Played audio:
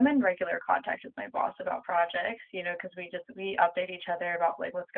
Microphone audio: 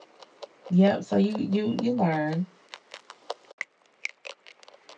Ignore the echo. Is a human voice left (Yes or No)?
Yes